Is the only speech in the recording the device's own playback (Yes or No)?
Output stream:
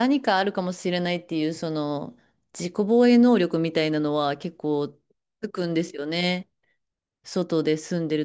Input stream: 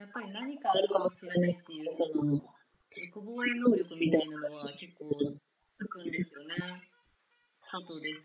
Yes